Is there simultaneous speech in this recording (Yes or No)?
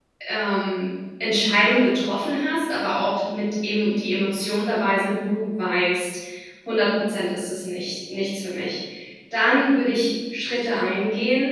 No